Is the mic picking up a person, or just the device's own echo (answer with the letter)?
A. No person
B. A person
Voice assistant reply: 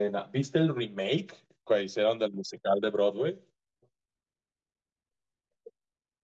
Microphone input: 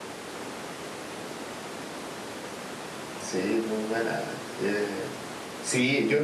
B